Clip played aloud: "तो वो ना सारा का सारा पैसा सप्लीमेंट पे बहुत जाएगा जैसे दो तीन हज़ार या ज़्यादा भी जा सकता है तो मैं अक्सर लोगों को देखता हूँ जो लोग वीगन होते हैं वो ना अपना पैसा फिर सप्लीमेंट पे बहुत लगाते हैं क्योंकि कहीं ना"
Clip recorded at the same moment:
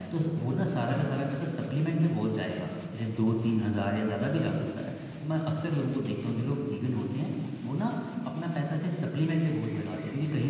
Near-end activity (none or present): none